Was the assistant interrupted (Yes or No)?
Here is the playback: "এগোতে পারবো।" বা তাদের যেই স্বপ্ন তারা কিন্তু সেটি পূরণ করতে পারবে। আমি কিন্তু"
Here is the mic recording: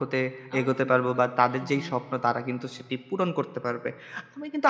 Yes